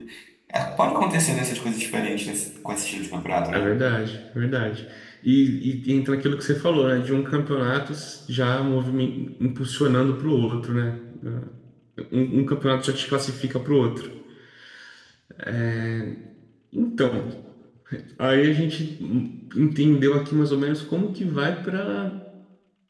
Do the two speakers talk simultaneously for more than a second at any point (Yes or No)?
No